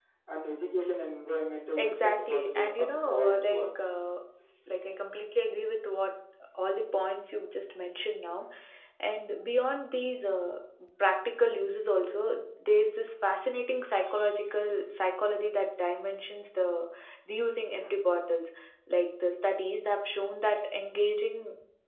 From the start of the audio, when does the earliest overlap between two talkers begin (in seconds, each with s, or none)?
1.8 s